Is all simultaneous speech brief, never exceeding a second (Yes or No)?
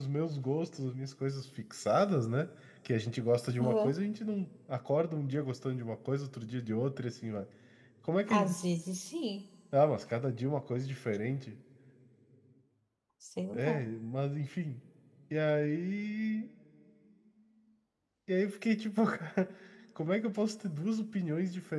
Yes